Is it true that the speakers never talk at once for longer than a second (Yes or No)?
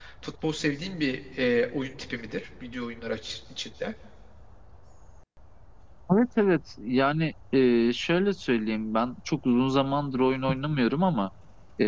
Yes